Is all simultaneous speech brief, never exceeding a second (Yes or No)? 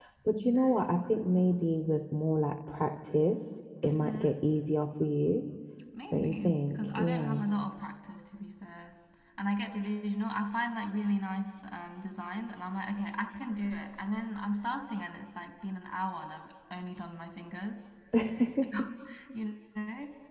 No